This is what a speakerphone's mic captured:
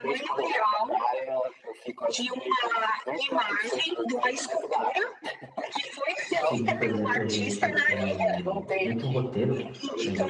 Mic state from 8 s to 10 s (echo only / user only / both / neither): both